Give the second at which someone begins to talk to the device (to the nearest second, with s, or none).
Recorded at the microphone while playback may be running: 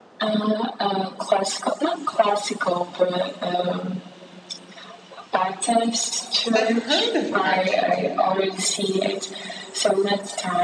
7 s